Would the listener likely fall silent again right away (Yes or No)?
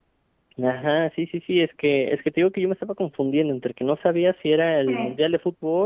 Yes